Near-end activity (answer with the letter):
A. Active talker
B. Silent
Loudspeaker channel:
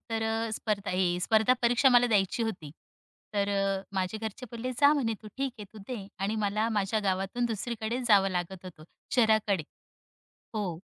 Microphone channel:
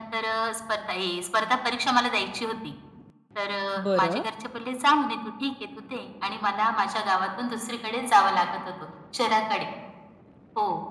A